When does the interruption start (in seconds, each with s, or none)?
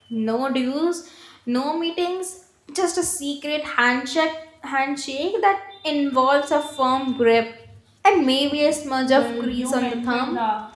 9.0 s